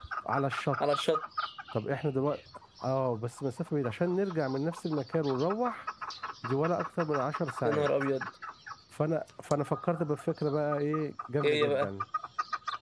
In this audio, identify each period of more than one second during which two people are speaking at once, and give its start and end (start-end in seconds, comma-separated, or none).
none